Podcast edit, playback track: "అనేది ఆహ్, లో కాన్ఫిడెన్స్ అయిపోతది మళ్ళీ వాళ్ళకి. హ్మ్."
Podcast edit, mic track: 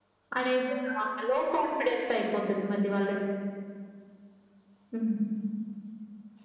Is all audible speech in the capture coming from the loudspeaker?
Yes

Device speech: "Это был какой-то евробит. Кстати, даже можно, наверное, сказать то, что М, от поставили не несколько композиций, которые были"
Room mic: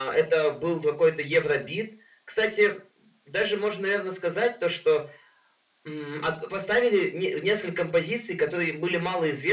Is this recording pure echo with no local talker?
Yes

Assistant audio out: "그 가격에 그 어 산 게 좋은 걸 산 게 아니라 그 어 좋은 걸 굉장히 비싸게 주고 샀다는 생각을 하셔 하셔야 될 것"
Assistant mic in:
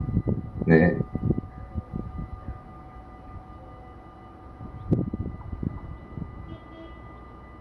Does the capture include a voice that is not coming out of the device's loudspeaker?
Yes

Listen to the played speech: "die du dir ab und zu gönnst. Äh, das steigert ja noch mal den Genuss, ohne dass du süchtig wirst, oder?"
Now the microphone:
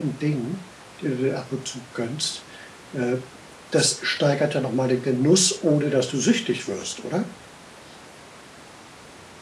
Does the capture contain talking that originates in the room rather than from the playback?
No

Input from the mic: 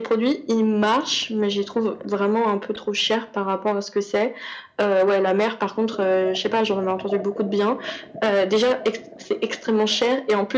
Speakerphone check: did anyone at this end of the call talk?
No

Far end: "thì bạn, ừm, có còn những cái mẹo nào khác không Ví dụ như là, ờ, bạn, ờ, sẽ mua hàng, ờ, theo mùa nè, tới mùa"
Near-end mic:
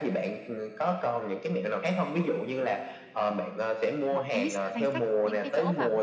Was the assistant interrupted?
Yes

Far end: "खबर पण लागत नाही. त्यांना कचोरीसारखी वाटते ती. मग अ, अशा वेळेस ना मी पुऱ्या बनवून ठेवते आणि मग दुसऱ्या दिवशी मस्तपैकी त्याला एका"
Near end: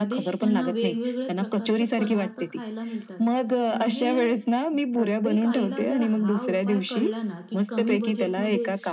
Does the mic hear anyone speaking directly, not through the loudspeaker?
Yes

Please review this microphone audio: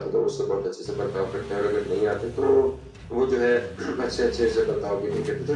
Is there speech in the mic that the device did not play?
No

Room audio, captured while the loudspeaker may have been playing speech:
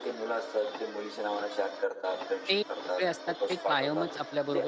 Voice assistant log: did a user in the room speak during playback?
Yes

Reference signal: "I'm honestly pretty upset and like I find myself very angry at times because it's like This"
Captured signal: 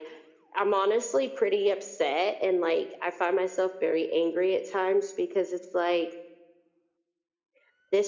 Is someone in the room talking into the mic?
No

